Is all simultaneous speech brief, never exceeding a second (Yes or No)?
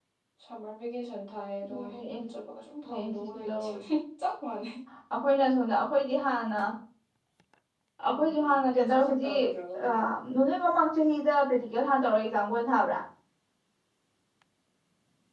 No